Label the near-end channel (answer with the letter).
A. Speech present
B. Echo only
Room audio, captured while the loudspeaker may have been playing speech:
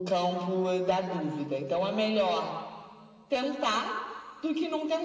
B